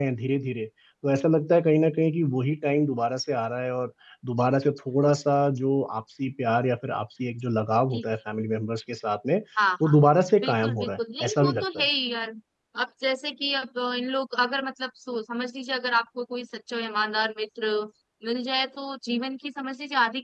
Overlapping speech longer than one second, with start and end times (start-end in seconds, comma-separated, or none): 10.4-11.9